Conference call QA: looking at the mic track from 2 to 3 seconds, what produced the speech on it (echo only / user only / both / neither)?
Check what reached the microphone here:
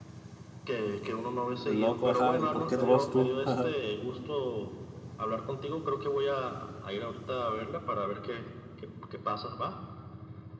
both